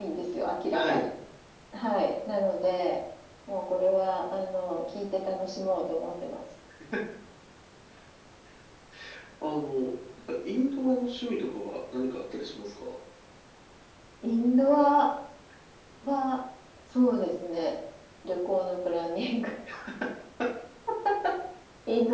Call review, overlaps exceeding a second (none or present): none